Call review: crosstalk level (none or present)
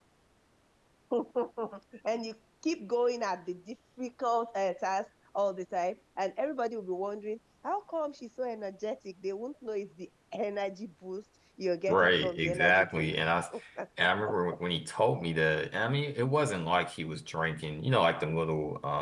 present